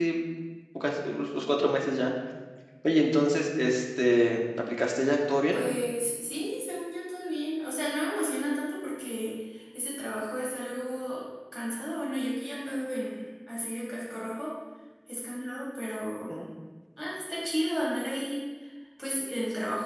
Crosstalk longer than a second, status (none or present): none